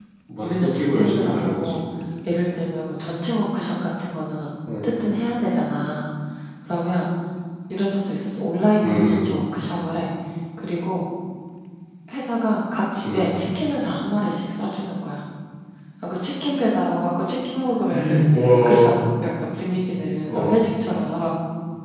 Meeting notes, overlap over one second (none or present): present